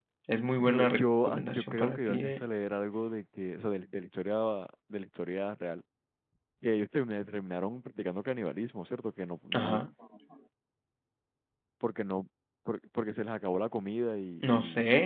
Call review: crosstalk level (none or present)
present